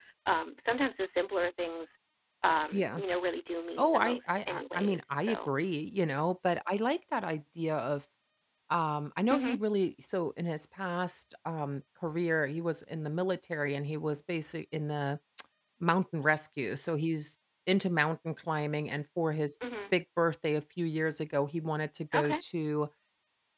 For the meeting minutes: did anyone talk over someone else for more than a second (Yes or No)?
Yes